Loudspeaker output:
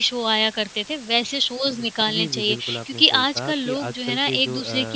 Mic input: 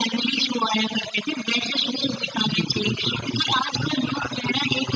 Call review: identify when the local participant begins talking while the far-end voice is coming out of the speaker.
none

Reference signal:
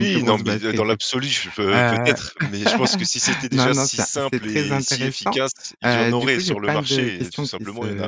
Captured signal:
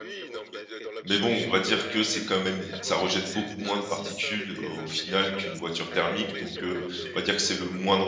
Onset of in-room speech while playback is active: 1.0 s

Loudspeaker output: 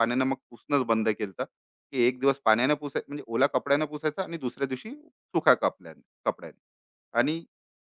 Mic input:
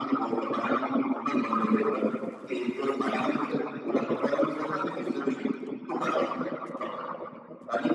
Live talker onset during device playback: none

